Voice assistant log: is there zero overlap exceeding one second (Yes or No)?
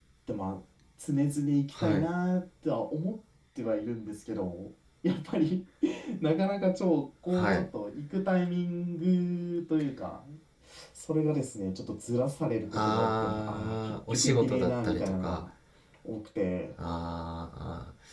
No